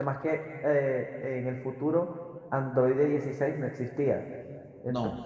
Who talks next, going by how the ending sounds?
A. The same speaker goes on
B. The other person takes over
A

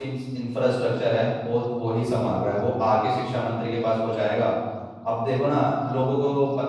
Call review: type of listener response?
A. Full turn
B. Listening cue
A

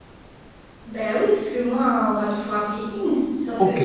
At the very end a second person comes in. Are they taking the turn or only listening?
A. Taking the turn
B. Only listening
A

